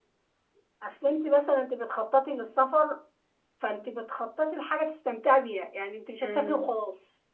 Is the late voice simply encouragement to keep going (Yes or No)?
Yes